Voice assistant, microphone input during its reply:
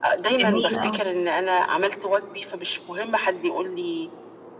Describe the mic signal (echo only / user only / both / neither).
both